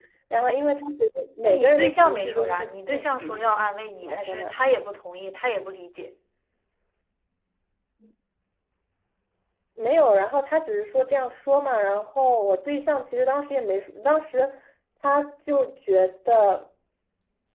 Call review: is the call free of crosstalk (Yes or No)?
No